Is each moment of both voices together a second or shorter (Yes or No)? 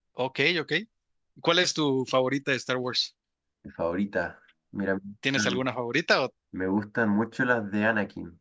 Yes